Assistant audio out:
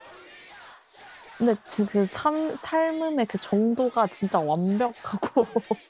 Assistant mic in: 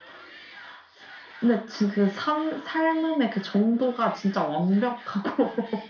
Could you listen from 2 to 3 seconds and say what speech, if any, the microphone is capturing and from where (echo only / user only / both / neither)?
echo only